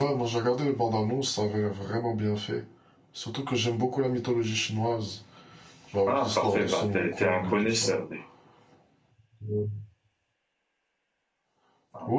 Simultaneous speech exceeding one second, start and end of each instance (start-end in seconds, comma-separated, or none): 6.1-7.9